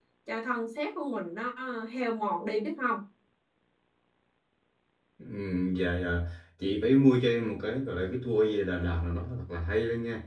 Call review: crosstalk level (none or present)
none